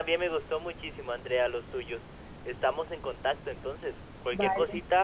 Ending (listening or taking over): listening